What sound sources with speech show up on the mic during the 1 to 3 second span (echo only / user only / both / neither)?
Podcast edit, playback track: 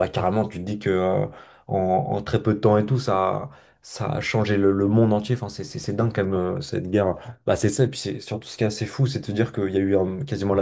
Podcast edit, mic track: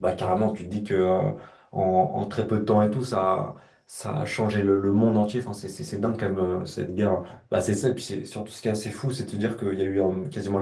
echo only